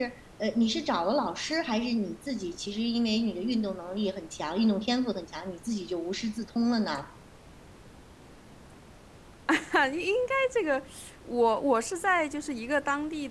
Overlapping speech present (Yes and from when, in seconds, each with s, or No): No